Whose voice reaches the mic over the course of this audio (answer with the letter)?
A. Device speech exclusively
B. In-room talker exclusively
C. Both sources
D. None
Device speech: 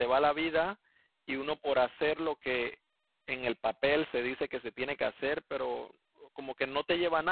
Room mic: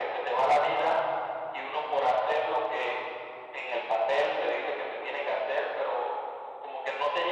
A